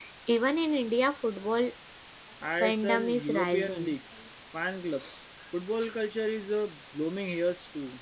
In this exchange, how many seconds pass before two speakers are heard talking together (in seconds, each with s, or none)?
2.6 s